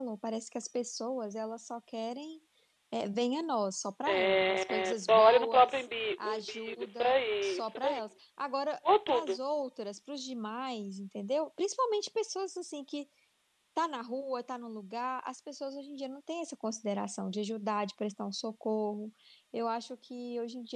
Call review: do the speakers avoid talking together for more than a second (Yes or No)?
No